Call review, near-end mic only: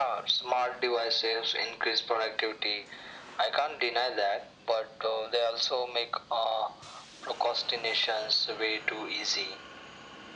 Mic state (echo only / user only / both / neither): echo only